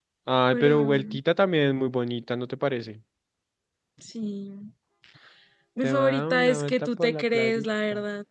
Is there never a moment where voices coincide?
No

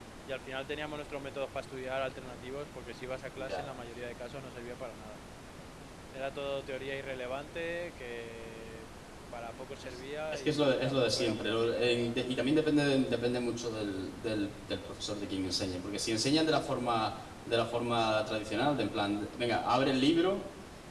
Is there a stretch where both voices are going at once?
Yes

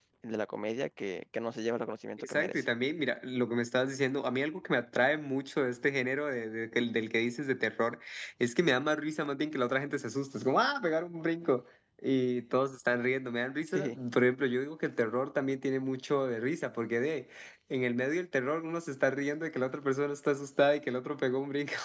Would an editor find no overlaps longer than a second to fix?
Yes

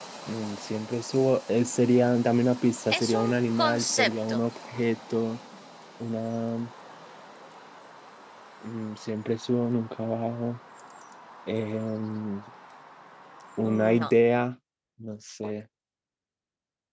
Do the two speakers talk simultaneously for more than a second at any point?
Yes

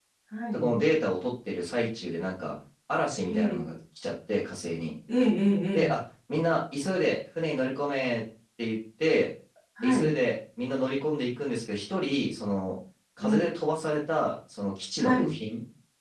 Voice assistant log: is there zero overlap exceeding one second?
Yes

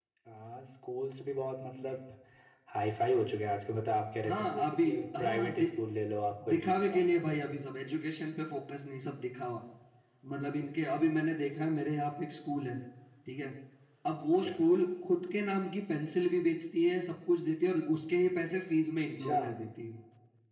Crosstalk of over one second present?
Yes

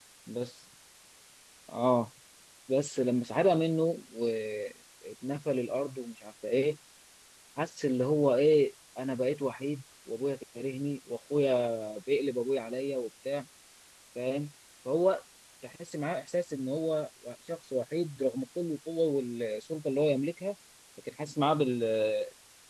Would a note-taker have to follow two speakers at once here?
No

